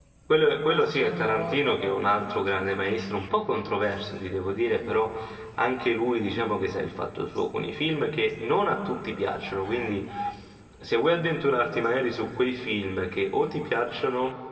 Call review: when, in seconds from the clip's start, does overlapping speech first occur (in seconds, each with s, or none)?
0.7 s